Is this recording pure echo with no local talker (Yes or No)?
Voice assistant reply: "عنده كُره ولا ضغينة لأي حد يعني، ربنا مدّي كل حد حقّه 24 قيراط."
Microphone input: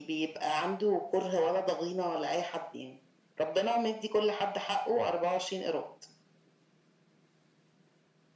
Yes